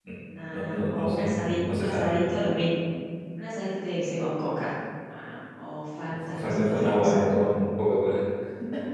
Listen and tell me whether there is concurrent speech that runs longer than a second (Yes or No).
Yes